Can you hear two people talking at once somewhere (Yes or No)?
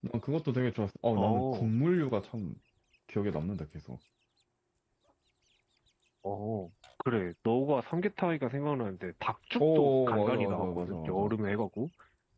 Yes